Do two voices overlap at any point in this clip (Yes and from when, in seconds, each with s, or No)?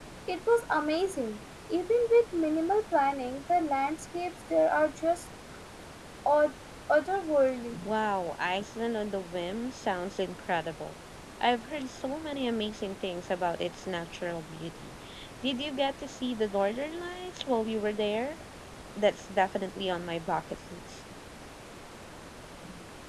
No